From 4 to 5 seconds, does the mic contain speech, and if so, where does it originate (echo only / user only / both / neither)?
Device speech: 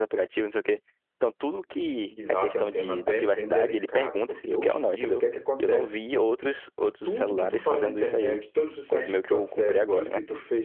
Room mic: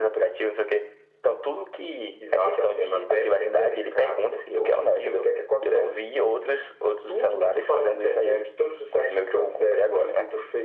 echo only